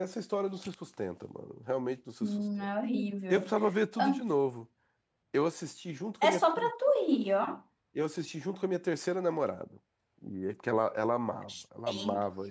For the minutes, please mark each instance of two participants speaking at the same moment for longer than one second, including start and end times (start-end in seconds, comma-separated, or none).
none